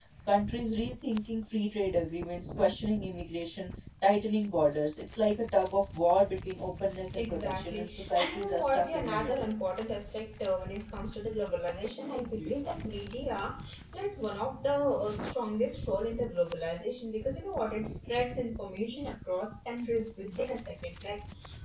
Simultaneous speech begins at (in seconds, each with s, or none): 7.2 s